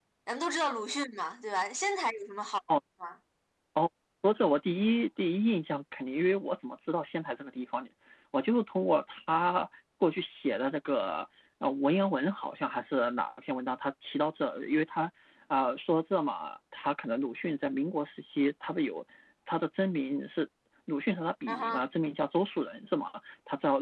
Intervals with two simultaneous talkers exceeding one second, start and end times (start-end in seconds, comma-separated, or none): none